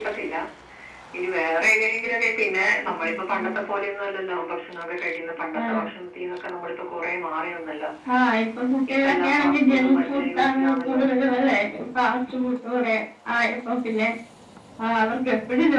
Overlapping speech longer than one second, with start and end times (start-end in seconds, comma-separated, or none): 8.9-11.0